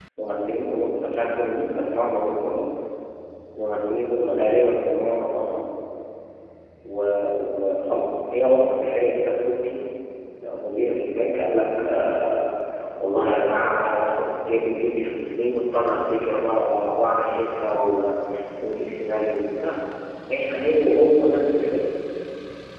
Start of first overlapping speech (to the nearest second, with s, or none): none